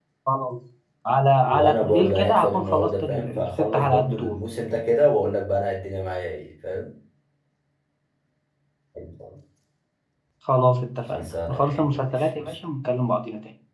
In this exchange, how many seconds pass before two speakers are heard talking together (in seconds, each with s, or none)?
1.5 s